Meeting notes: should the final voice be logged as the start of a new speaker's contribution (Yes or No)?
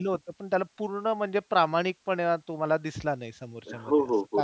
Yes